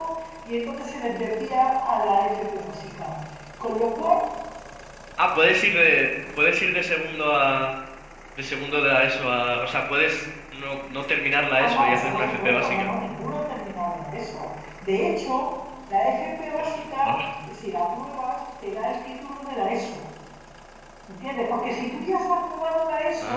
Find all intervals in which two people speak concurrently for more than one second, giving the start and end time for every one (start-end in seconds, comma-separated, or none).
11.6-12.9